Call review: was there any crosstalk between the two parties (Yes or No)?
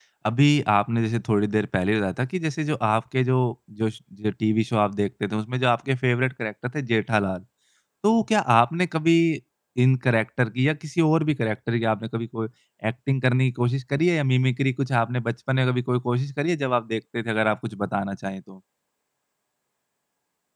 No